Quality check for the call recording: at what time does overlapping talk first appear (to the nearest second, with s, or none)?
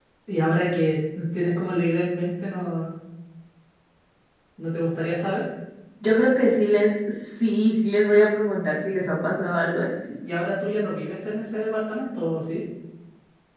none